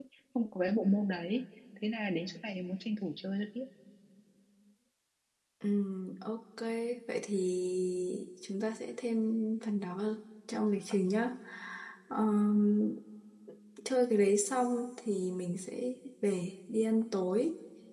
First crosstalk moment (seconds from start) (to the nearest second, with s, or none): none